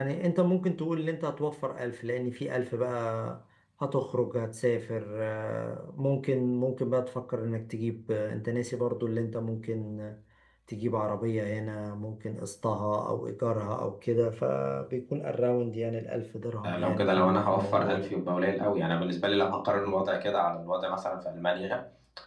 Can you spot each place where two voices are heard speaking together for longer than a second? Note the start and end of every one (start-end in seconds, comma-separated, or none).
16.6-18.1